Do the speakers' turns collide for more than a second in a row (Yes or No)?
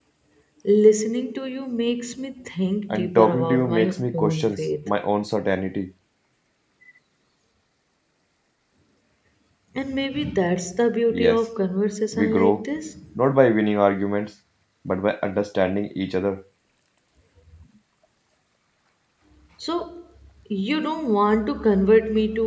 Yes